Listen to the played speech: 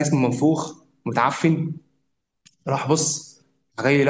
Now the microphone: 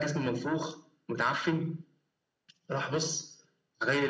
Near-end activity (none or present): none